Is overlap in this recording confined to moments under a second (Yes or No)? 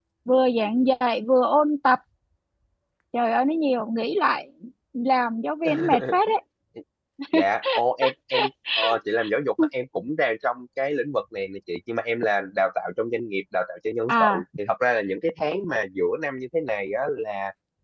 Yes